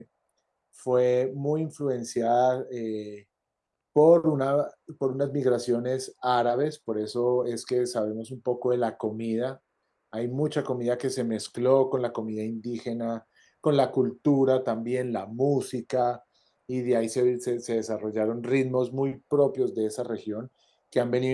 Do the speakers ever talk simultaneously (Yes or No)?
No